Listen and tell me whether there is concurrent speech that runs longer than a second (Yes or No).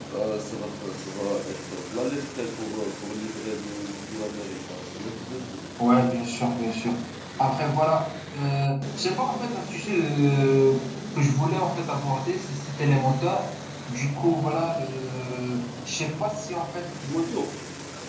No